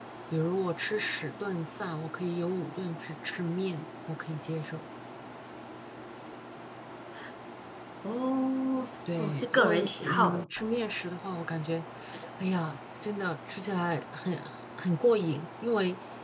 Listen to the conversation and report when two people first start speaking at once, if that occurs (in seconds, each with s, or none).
9.1 s